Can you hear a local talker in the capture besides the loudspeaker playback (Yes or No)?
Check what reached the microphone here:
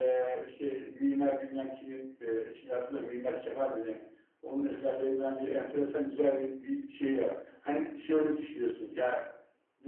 No